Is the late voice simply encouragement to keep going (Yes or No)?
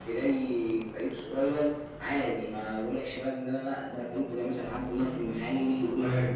Yes